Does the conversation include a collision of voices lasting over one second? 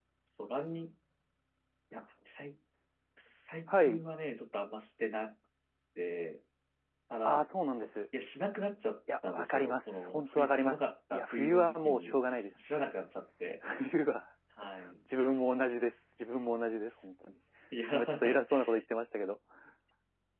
Yes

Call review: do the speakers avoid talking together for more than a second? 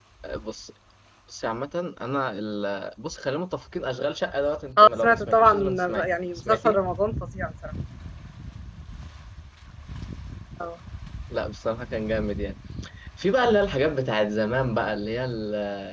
No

